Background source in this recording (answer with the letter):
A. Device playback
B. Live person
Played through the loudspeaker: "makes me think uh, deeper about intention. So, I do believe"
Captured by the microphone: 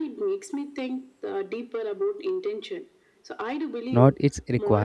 A